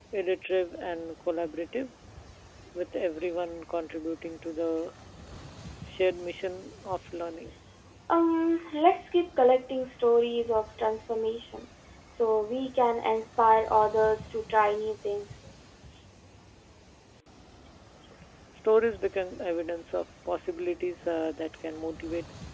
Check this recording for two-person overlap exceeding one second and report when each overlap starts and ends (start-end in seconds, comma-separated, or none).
none